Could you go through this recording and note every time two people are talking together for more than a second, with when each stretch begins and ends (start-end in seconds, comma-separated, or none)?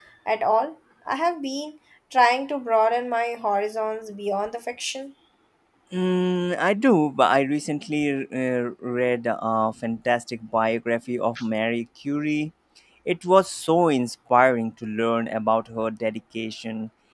none